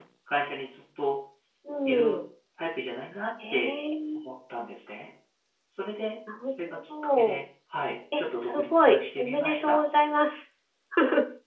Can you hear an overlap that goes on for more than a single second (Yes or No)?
Yes